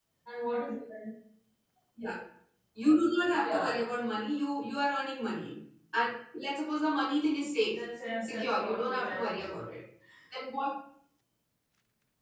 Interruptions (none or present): present